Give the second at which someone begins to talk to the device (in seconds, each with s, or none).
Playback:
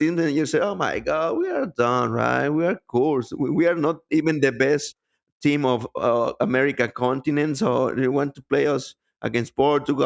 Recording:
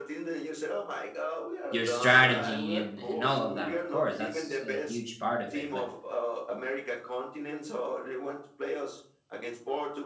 1.7 s